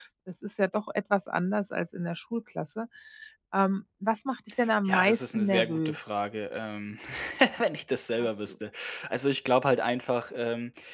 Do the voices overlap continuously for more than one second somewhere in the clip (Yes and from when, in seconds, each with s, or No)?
Yes, from 4.9 s